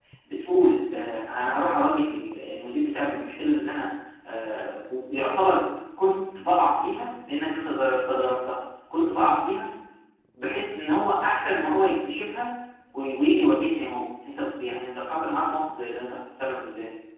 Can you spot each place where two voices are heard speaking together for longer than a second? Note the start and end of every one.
none

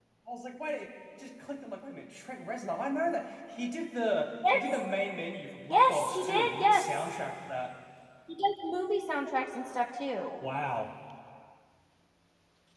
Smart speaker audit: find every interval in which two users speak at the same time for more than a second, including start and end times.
5.7-7.1

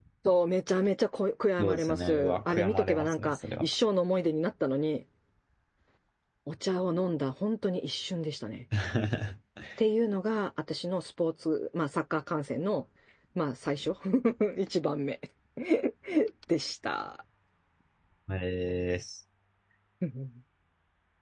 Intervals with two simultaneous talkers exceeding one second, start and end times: 1.6-3.7

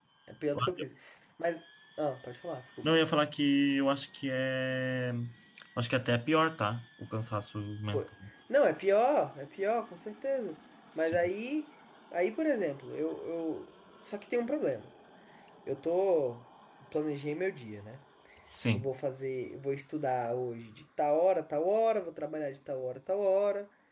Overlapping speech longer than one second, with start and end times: none

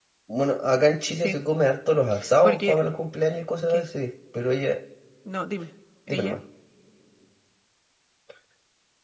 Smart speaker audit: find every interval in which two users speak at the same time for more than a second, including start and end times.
none

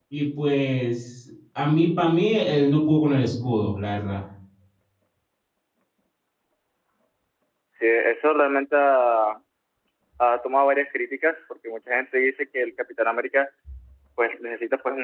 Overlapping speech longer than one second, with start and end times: none

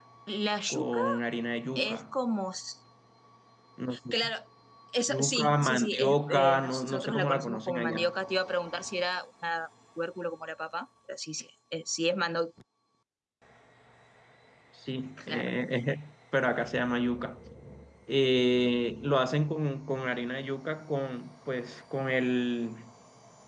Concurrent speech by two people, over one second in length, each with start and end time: 5.1-8.1

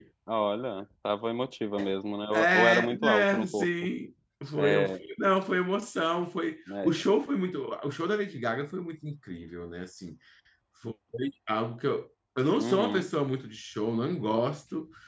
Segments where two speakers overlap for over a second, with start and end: 2.3-3.7

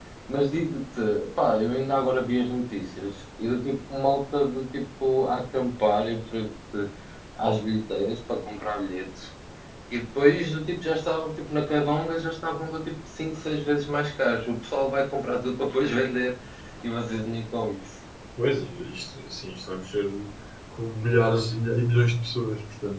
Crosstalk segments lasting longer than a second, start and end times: none

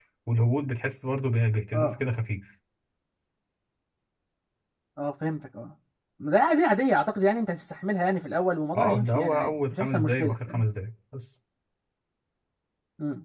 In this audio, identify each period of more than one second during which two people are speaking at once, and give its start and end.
8.8-10.6

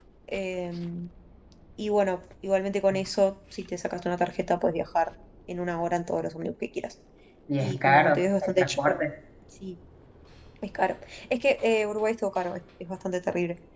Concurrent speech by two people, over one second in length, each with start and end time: 7.6-9.0

